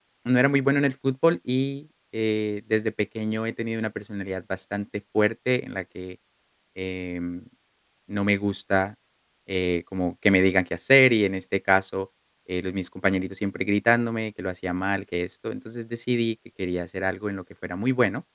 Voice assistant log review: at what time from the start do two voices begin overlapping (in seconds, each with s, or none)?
none